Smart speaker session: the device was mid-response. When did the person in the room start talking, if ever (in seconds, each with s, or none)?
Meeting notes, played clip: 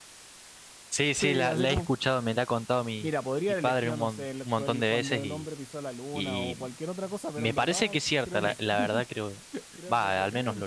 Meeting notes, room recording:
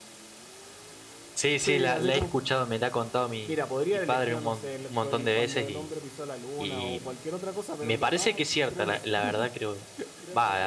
none